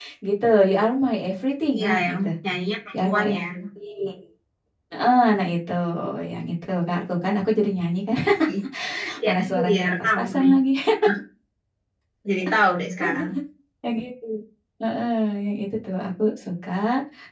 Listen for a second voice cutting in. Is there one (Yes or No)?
Yes